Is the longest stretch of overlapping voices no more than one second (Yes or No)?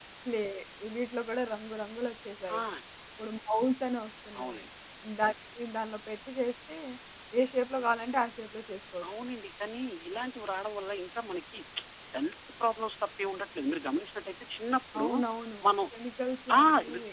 Yes